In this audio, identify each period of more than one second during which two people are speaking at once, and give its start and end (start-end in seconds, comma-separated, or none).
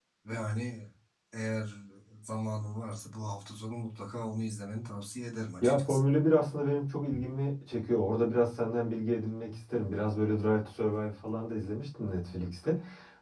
none